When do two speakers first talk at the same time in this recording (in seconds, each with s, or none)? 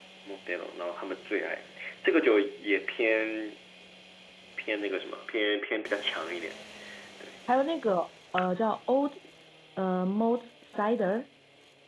none